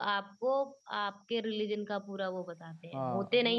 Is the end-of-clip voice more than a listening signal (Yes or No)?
Yes